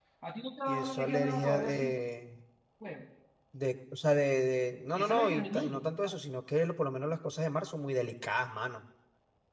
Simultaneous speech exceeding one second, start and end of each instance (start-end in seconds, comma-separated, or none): 0.7-1.9, 4.9-6.1